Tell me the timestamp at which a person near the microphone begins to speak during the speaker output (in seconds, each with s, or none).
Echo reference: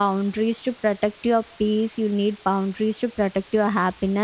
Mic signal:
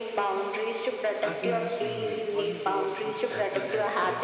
1.2 s